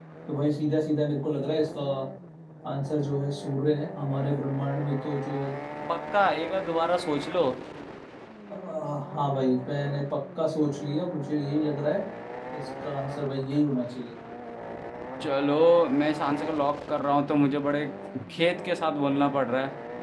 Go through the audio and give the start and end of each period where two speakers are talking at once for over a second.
none

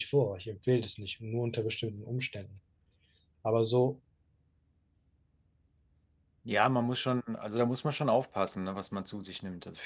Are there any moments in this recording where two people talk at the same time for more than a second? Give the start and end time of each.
none

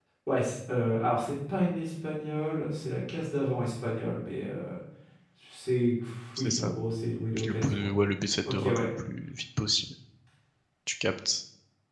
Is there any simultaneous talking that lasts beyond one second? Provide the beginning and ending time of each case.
none

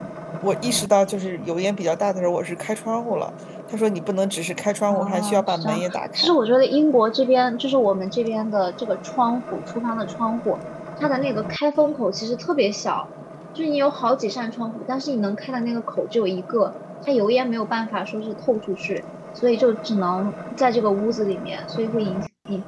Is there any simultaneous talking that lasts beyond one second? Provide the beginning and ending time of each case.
4.9-6.3

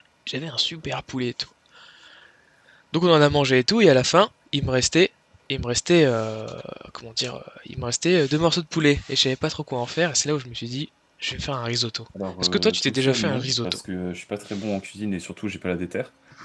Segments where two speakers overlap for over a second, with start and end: 12.4-13.8

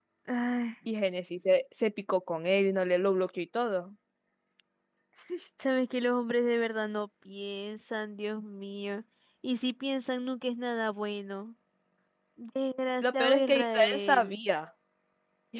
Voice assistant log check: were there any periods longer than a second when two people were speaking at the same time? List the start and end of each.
13.0-14.4

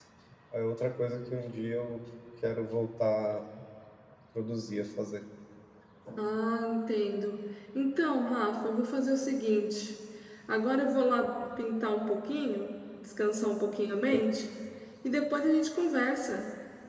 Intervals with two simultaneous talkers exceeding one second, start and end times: none

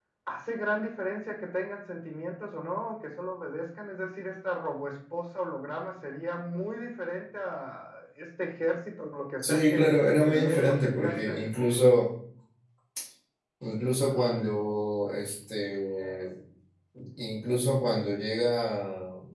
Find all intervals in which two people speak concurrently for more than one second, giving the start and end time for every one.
9.5-11.4

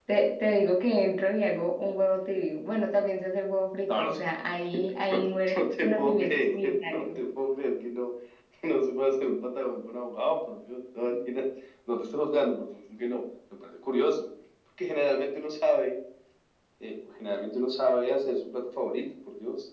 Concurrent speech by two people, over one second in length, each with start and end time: 5.5-7.2

